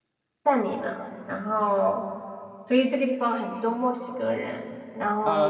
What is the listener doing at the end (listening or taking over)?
taking over